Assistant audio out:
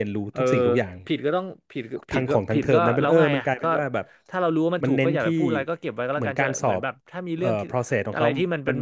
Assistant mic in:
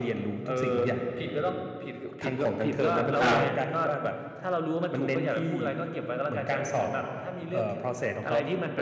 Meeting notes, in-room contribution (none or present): present